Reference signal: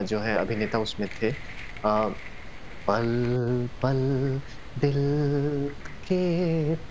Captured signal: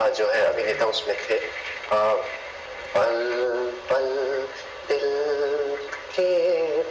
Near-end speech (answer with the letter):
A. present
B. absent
B